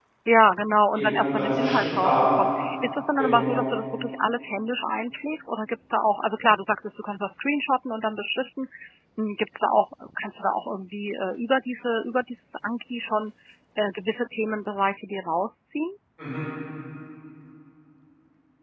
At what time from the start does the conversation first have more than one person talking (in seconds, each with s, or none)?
0.9 s